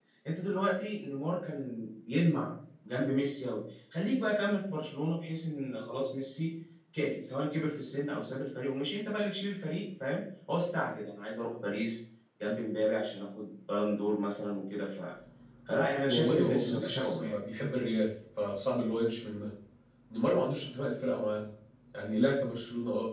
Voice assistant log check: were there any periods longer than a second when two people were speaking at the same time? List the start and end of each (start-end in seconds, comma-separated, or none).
16.1-17.3